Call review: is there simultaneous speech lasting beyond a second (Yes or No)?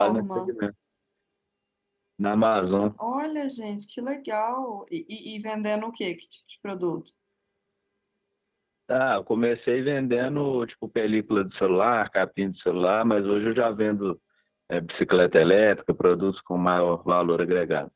No